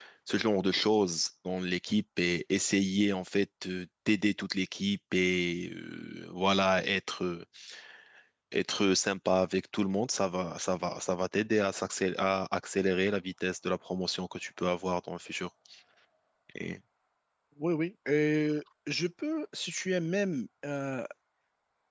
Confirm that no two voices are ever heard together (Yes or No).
Yes